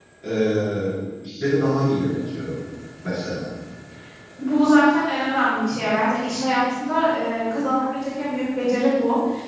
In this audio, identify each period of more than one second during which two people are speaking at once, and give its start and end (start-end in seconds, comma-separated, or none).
none